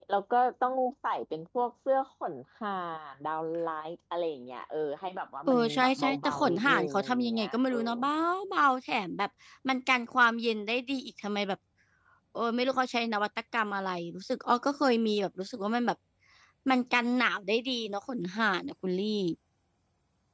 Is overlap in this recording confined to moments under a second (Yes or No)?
No